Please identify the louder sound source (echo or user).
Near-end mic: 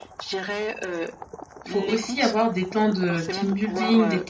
user